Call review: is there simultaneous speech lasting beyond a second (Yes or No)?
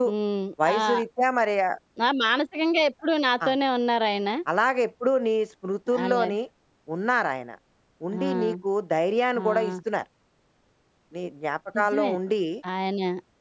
No